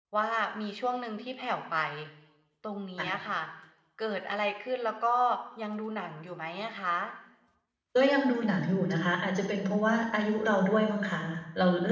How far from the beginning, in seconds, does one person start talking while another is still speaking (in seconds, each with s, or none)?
none